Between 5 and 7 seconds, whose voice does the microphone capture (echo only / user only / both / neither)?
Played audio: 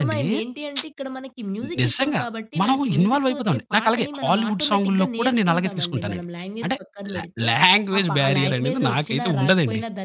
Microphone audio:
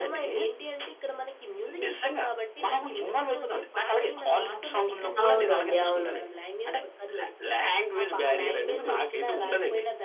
both